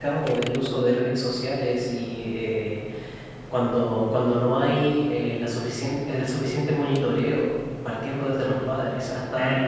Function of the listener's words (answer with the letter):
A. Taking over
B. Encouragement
B